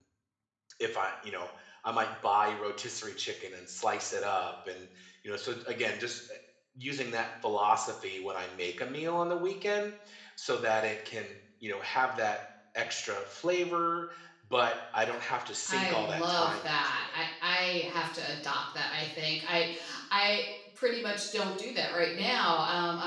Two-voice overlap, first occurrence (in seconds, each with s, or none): 15.7 s